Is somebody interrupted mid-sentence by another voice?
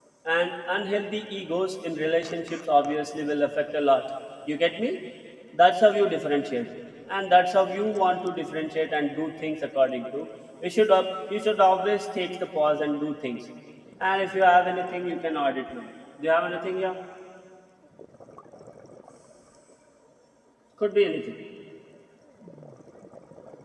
No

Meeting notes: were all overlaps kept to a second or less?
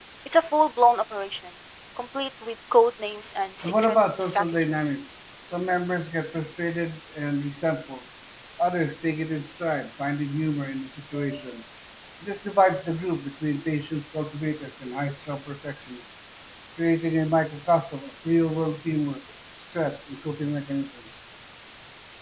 No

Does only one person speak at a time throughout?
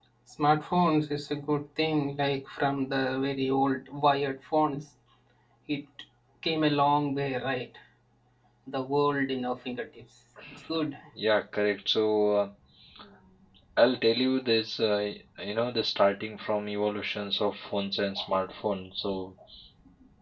Yes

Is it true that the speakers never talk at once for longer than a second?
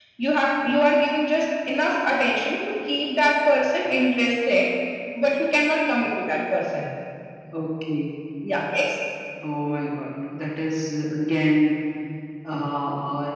Yes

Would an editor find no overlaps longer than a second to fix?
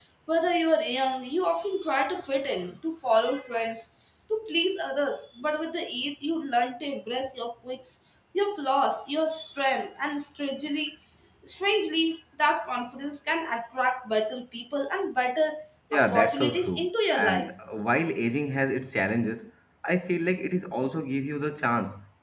No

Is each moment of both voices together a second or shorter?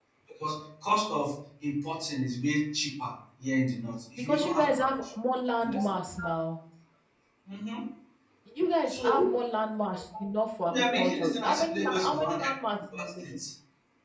No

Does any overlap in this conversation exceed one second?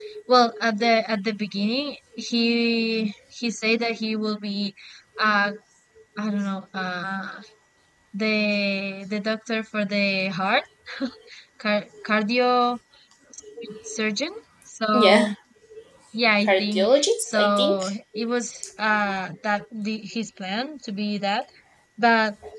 Yes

